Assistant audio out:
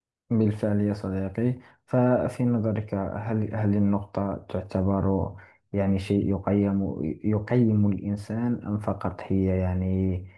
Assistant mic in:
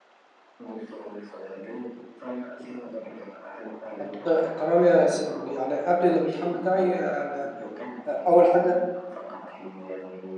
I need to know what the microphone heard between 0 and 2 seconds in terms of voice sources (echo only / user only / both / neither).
echo only